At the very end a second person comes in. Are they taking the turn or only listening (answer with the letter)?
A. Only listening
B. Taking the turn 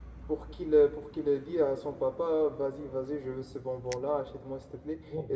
A